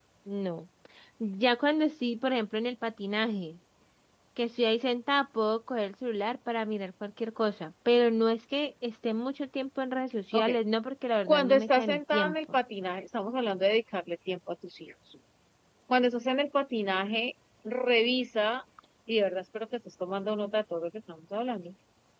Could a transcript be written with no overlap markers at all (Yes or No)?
No